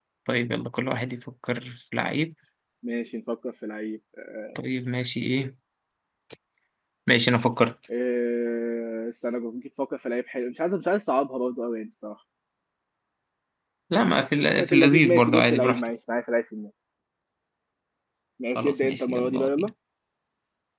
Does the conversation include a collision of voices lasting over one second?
Yes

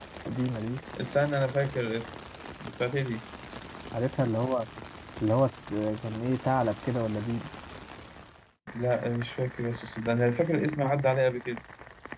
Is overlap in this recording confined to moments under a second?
Yes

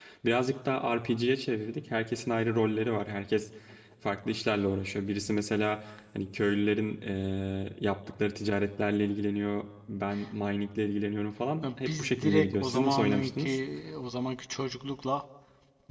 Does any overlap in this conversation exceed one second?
Yes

